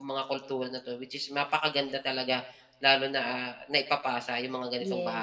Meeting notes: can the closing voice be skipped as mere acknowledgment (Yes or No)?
No